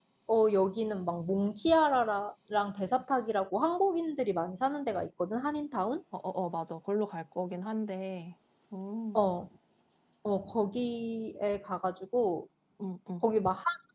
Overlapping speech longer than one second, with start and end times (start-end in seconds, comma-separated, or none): none